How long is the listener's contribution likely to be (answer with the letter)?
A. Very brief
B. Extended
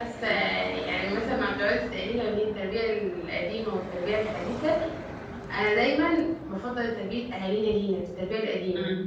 B